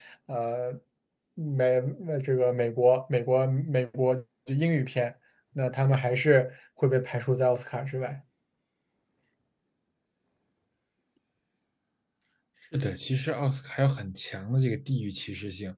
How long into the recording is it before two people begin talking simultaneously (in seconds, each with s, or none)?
none